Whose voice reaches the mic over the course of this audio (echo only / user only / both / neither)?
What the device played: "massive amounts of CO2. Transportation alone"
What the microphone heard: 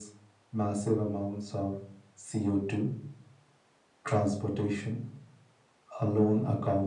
echo only